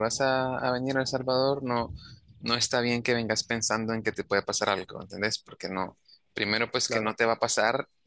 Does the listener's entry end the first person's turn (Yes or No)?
No